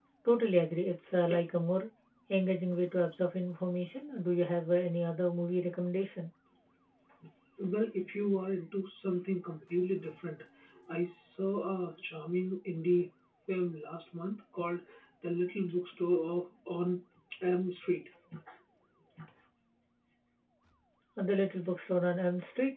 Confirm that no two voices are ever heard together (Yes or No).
Yes